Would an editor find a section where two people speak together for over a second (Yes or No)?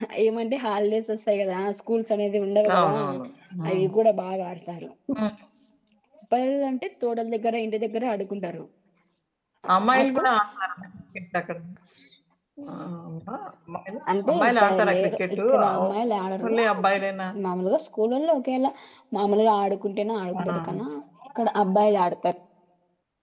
Yes